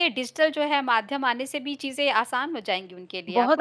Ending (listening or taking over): taking over